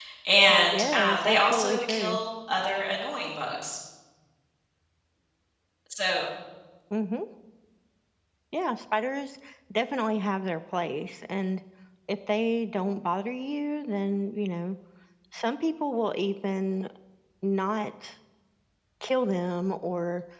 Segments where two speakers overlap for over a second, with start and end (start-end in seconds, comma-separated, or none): 0.7-2.2